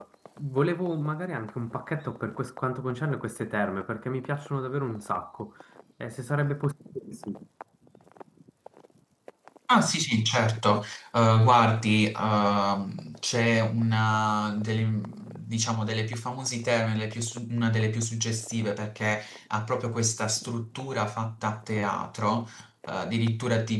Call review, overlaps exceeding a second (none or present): none